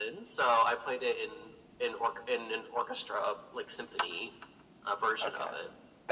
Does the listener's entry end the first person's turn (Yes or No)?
Yes